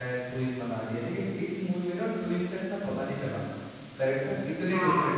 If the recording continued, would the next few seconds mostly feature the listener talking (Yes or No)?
No